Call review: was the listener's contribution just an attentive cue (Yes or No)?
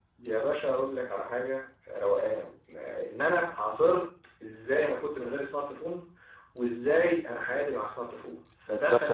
No